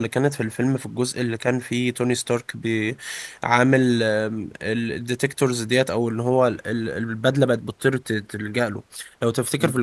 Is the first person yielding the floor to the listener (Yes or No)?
No